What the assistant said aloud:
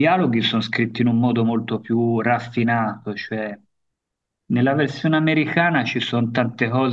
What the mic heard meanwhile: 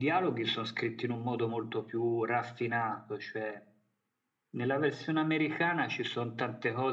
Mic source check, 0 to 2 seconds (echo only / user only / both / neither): echo only